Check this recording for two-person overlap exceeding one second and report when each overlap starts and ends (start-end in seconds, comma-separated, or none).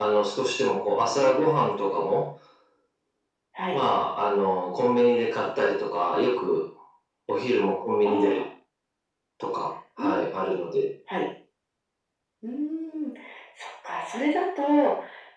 none